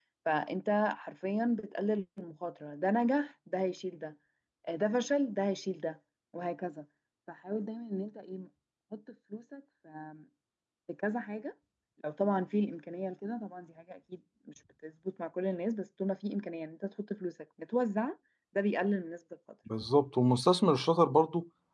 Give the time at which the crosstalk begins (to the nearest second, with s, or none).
none